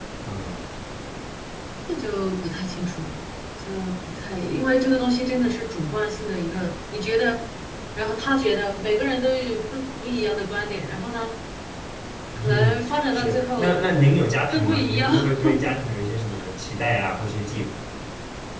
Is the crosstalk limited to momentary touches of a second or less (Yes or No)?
No